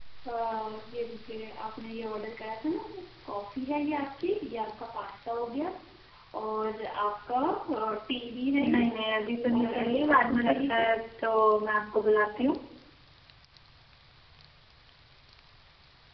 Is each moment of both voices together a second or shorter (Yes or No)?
No